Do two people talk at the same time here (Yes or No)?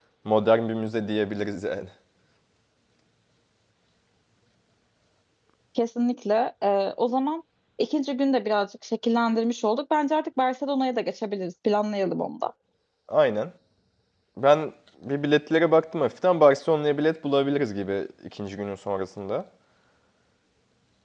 No